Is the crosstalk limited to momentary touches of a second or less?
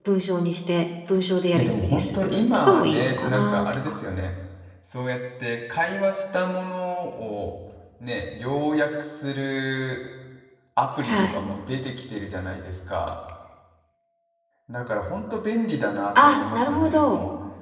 No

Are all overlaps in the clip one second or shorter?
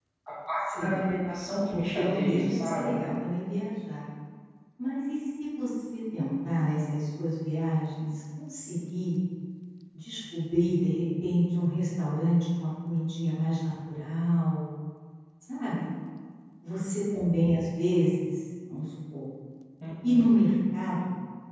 No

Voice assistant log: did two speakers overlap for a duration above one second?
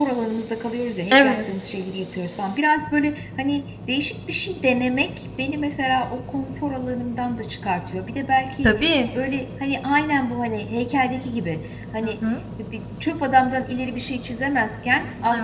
No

